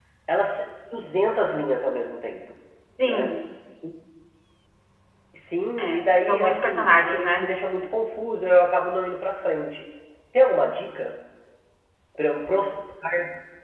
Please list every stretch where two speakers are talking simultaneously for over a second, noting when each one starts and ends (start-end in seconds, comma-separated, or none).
5.8-7.4